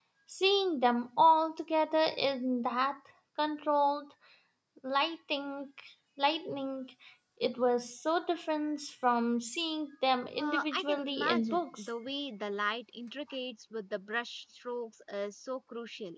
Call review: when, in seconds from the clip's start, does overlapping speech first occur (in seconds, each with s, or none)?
10.4 s